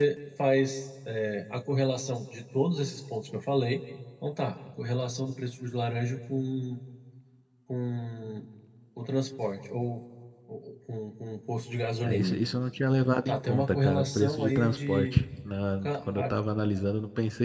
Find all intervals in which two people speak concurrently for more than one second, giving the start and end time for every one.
13.3-15.2

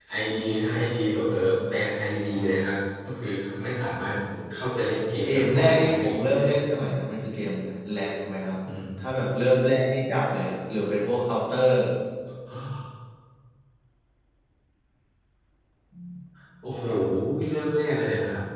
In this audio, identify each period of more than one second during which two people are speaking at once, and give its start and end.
5.2-6.6

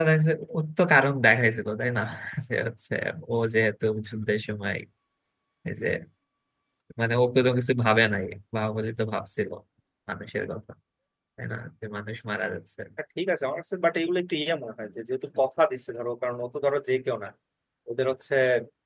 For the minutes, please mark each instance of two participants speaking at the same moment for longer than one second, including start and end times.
none

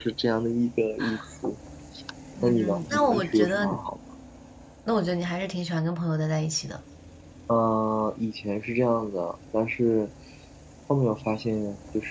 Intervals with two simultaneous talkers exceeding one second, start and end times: 2.4-3.7

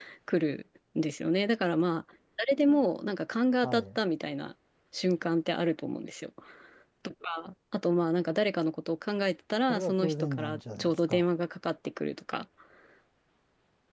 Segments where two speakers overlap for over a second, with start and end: 9.7-11.2

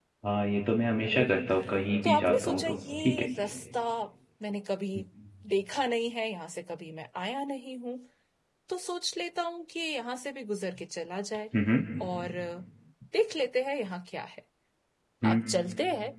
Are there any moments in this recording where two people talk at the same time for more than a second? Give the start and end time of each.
2.0-3.2

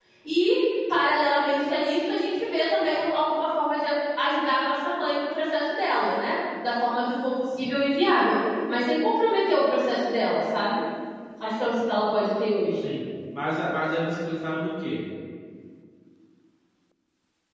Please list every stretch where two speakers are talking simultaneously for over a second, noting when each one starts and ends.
none

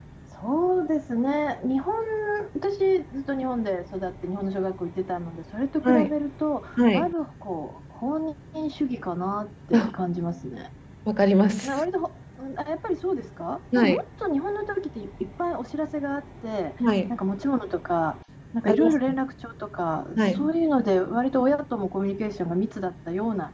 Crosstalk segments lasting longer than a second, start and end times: none

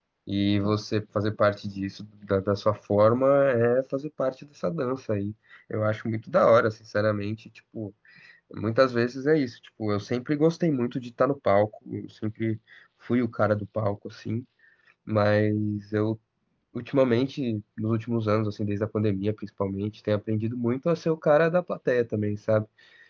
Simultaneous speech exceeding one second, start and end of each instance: none

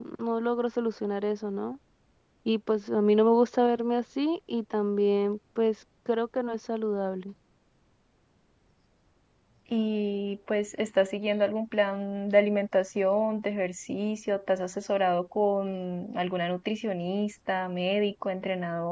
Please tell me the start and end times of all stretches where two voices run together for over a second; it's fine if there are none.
none

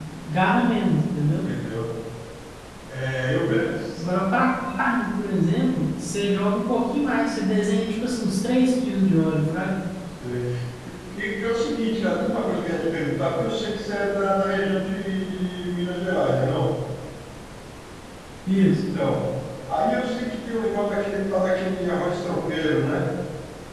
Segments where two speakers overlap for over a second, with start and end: none

